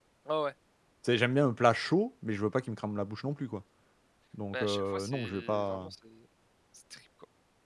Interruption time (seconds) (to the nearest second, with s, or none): 5 s